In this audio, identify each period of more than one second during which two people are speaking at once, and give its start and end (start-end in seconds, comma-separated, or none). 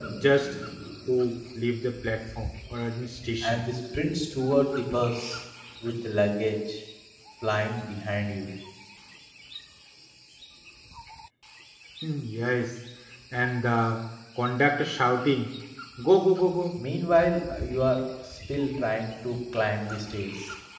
none